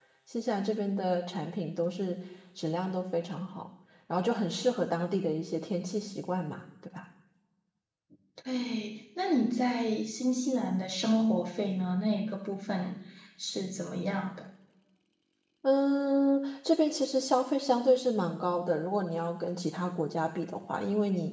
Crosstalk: none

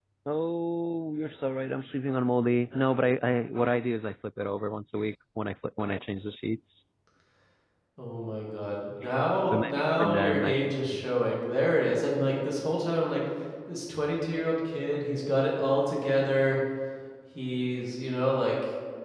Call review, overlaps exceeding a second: present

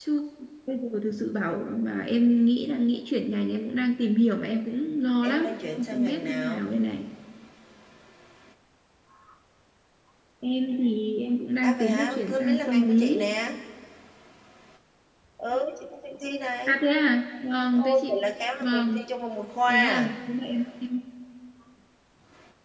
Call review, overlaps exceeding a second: present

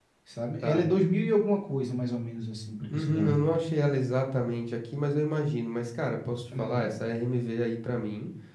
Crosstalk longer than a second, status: none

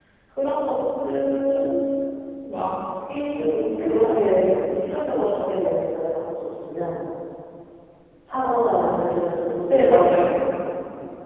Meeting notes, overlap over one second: present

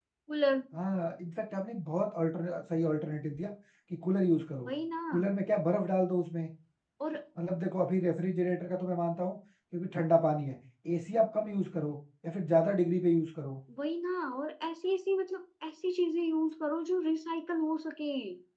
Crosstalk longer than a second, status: none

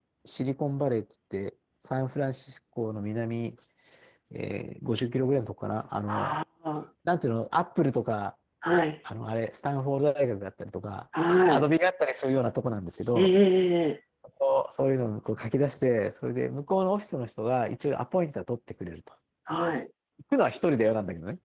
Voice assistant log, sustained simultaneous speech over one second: none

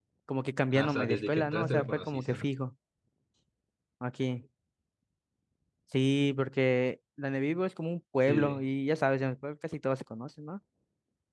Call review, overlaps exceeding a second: present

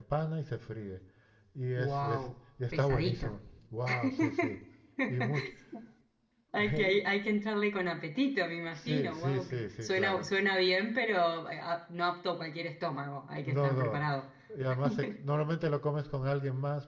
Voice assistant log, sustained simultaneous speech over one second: present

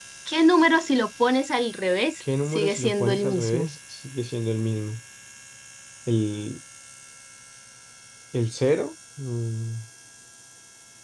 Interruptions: present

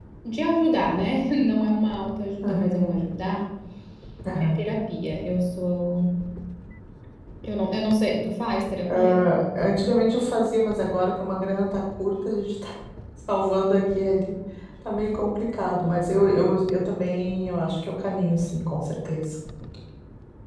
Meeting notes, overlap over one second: none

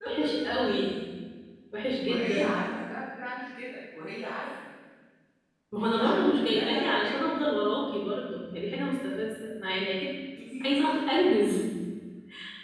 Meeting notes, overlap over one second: present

